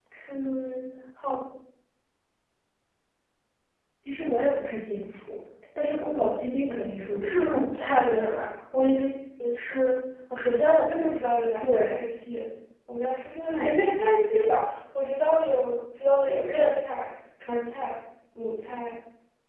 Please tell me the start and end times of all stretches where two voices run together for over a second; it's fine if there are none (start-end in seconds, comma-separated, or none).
6.0-7.5